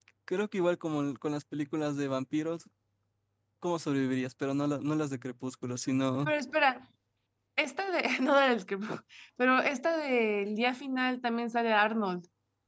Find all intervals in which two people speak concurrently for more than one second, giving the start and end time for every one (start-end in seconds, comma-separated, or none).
none